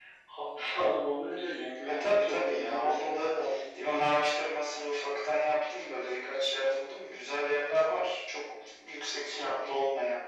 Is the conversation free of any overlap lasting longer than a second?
No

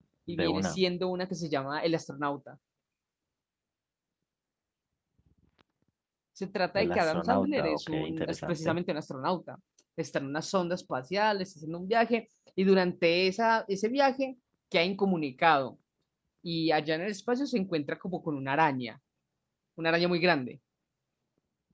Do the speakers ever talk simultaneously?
Yes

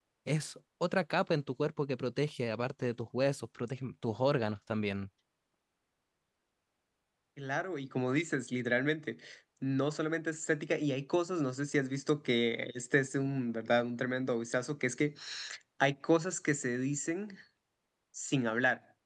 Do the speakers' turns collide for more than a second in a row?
No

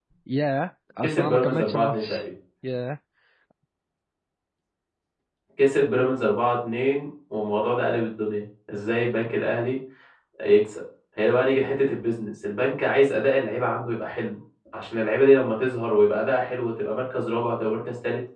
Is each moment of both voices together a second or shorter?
No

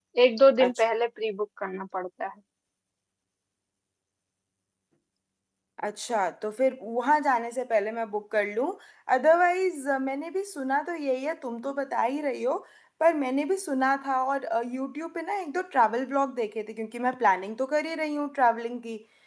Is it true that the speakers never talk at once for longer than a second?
Yes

